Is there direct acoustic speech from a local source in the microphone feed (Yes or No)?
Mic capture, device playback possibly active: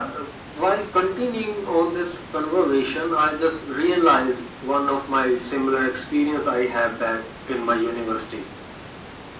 No